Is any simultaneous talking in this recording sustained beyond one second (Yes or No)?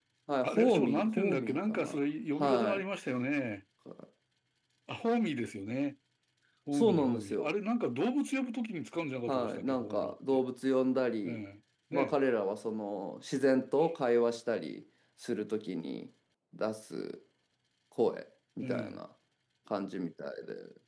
Yes